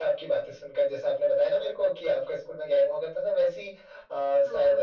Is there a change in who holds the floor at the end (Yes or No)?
No